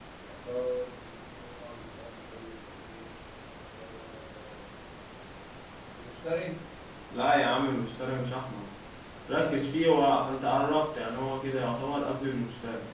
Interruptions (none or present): none